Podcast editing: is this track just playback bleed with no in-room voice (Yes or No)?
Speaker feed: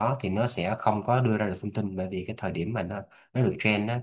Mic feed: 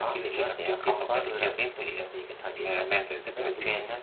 No